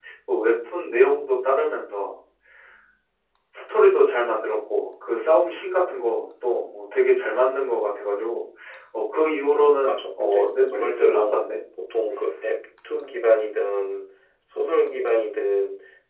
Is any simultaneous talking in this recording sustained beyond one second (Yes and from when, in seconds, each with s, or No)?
Yes, from 9.8 s